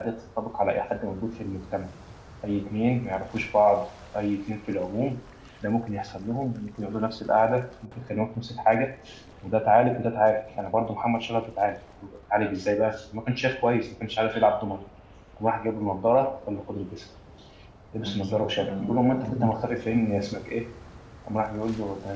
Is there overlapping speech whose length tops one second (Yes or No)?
Yes